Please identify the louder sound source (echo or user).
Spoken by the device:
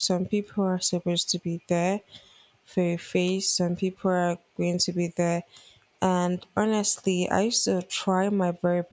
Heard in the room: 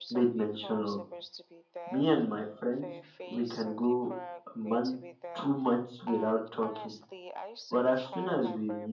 user